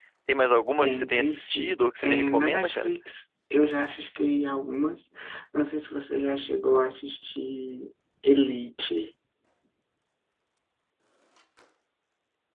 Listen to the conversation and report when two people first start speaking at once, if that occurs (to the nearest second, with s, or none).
1 s